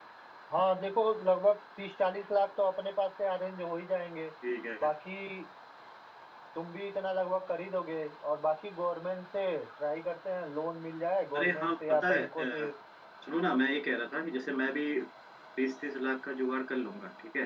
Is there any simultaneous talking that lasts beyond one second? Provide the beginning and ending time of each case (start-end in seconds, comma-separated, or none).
11.3-12.7